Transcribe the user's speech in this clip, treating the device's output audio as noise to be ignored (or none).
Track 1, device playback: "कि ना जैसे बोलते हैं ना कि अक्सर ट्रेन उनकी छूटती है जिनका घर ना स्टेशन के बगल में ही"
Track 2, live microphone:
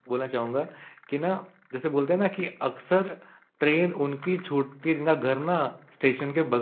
none